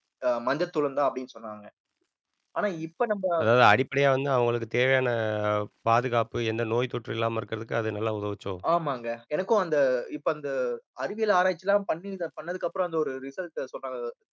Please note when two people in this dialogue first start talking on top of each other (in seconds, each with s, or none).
none